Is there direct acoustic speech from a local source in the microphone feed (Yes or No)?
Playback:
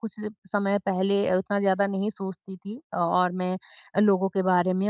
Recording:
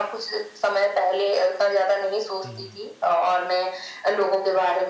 Yes